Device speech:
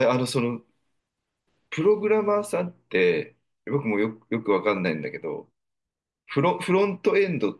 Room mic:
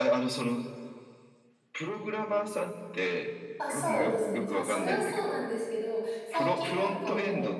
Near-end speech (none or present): present